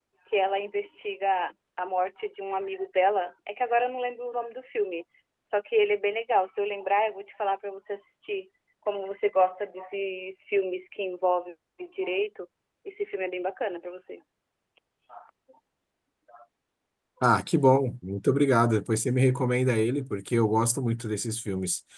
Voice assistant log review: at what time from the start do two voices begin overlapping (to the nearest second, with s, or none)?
none